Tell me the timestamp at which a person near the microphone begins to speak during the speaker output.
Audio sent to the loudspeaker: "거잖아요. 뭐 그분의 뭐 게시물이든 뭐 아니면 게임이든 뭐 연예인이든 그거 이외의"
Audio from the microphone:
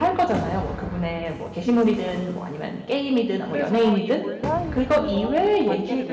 3.5 s

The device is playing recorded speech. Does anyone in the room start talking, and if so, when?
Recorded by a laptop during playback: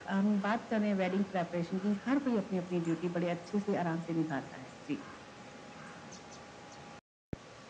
none

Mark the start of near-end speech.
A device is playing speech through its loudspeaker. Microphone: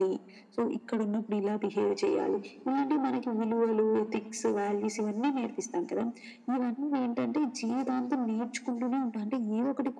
none

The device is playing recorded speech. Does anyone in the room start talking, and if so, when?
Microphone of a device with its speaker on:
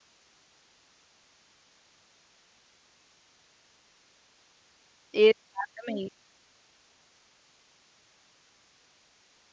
5.1 s

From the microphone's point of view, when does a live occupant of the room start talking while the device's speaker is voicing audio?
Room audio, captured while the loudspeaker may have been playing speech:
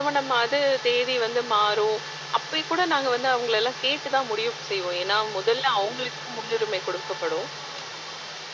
none

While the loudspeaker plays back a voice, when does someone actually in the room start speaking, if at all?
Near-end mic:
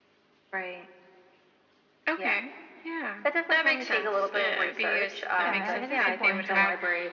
5.3 s

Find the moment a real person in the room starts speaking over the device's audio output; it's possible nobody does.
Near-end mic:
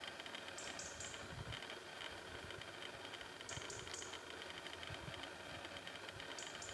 none

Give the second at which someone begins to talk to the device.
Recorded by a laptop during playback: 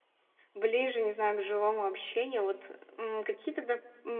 0.5 s

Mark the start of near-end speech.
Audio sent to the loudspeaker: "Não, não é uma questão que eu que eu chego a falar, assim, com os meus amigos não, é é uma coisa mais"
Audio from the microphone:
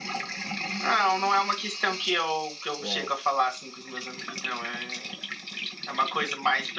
2.8 s

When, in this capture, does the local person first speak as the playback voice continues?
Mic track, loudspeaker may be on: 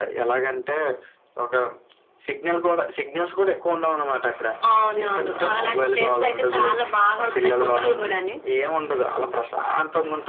none

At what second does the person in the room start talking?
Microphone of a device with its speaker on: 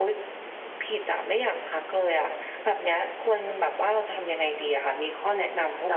none

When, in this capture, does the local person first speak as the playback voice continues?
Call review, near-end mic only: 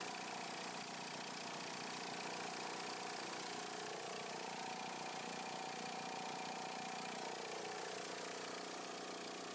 none

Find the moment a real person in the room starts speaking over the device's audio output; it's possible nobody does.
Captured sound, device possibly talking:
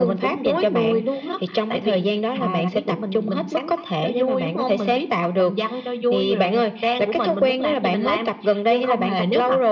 none

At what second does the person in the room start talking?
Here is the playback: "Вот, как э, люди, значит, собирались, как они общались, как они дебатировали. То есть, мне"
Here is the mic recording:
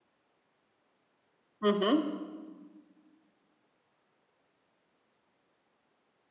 1.6 s

